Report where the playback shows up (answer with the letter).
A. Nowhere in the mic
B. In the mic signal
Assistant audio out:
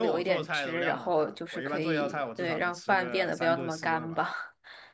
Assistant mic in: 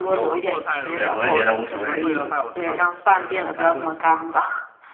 B